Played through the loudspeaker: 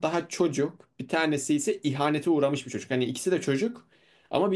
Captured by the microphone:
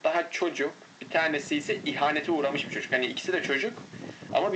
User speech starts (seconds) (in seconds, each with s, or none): none